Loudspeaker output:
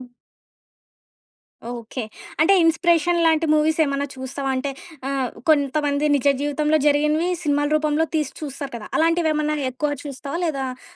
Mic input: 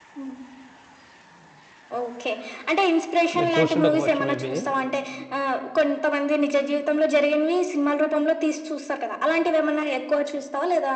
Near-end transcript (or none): మీరు చూసి ఉండకపోవచ్చు మేబీ.